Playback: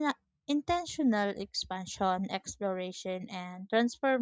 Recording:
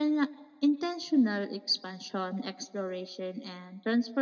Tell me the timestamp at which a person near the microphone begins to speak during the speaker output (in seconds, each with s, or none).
none